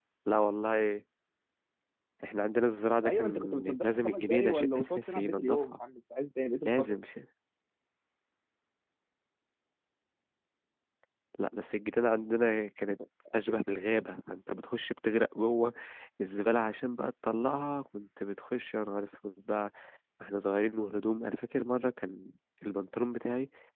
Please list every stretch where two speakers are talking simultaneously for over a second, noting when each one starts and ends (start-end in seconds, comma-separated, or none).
3.0-5.8